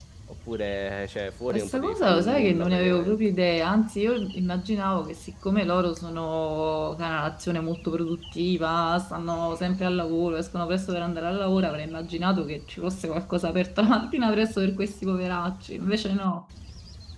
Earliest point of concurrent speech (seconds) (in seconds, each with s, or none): 1.5 s